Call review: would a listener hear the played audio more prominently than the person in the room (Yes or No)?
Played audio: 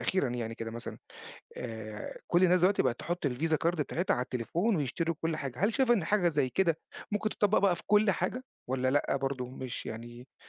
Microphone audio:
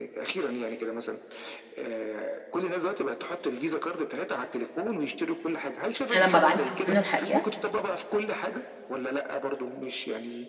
No